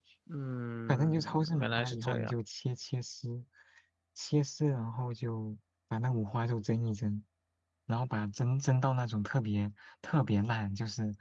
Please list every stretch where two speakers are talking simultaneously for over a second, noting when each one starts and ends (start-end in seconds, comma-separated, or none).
0.9-2.3